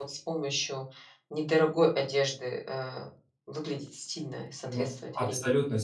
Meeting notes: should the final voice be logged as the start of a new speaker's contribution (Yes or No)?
Yes